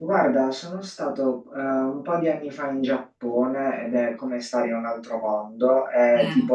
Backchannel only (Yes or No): Yes